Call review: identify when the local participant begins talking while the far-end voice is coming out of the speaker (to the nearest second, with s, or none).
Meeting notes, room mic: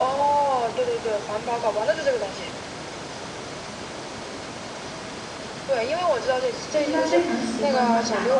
7 s